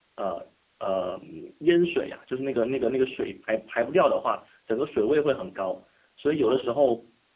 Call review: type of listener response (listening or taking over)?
listening